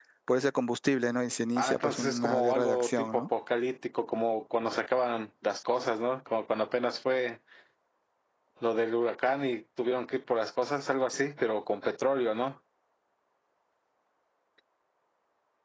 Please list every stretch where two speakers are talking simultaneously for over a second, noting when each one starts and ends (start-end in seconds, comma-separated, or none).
1.6-3.2